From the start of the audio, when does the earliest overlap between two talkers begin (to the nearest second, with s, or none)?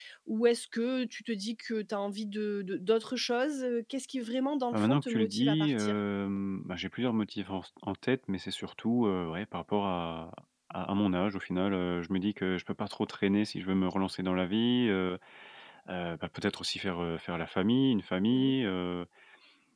5 s